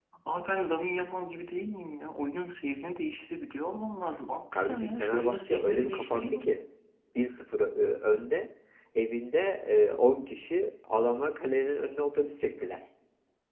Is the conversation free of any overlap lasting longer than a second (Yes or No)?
No